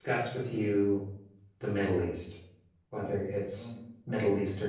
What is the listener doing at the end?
listening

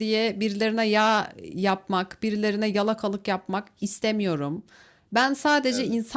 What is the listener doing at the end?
listening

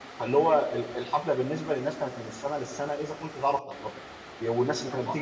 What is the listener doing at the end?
listening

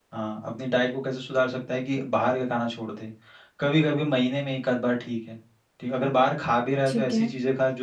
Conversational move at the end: listening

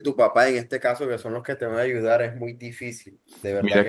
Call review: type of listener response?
taking over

